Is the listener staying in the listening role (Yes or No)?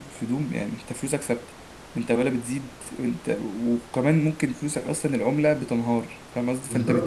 No